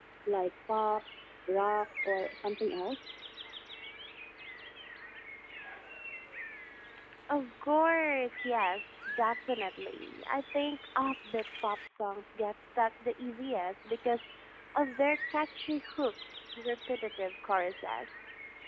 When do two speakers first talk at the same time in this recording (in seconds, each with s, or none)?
none